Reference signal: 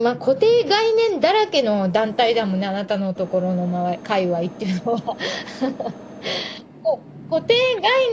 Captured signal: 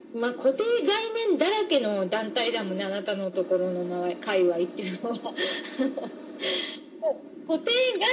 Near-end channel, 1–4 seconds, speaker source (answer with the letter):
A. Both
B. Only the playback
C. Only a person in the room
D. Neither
B